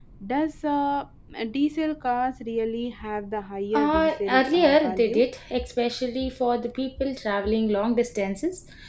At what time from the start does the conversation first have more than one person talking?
3.7 s

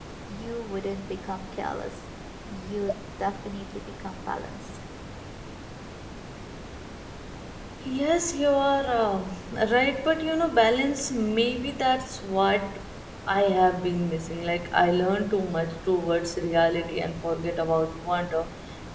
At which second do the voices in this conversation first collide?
none

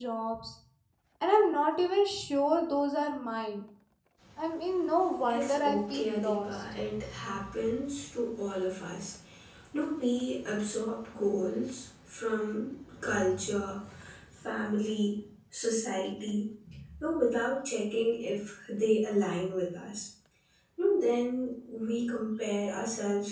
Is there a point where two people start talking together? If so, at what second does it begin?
5.3 s

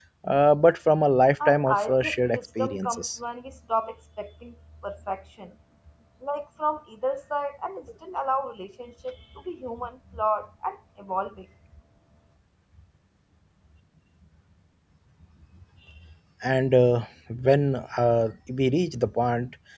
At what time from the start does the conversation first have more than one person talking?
1.4 s

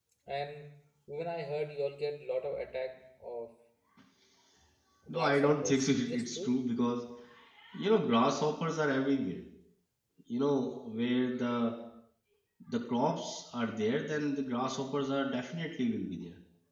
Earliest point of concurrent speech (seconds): 5.1 s

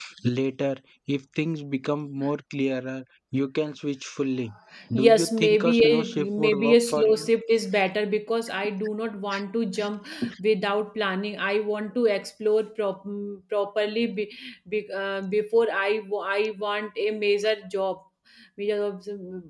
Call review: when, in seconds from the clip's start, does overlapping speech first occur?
4.9 s

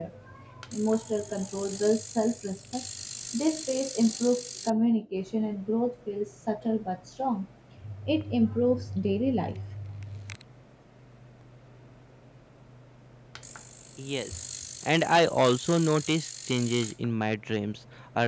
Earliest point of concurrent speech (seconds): none

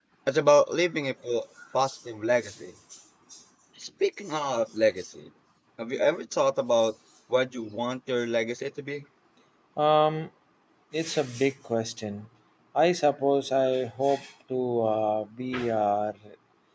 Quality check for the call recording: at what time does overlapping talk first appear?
none

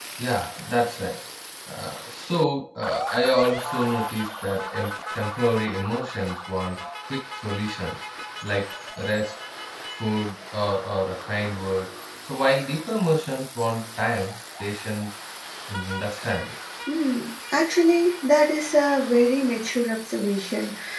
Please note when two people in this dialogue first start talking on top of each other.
none

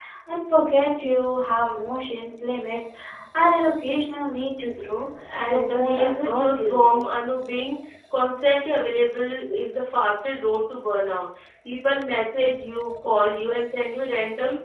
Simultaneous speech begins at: 5.5 s

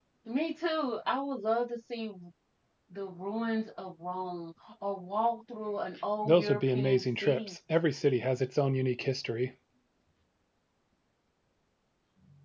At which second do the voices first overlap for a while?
6.2 s

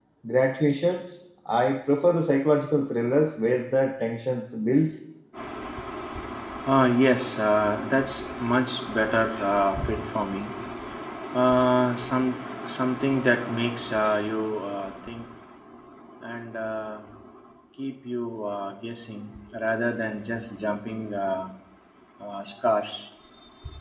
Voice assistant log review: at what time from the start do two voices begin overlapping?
none

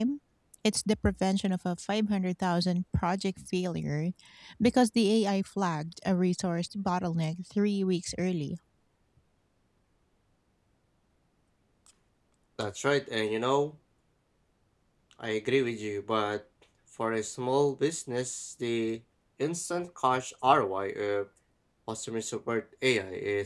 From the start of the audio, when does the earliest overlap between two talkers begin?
none

